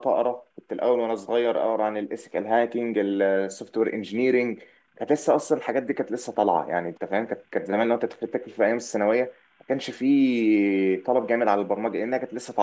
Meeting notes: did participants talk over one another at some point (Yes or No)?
No